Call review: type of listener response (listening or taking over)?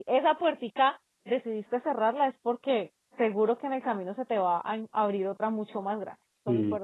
taking over